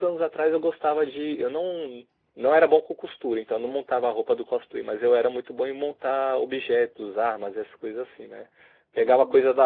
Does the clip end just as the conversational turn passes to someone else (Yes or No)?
No